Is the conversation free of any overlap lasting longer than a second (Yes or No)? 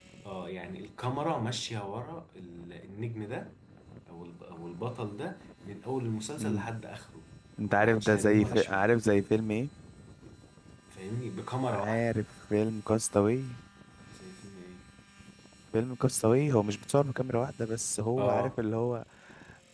No